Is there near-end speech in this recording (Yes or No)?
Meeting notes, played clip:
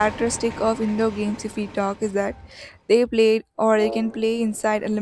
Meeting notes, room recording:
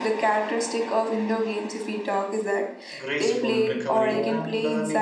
Yes